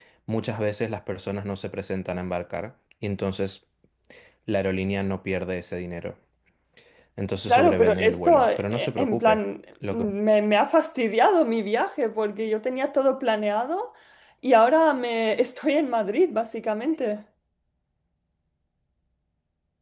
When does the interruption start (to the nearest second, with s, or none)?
7 s